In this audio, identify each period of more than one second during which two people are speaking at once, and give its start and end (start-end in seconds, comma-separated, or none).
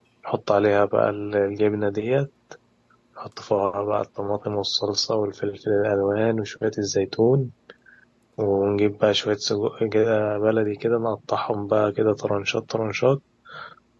none